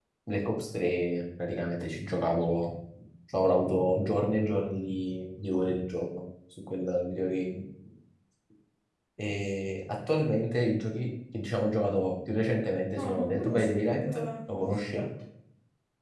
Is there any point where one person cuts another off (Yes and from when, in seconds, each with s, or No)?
Yes, from 12.9 s